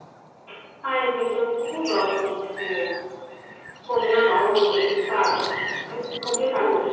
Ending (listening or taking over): listening